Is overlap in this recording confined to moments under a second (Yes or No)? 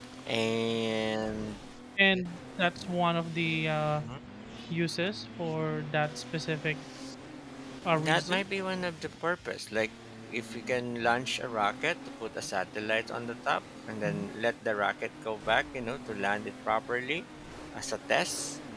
Yes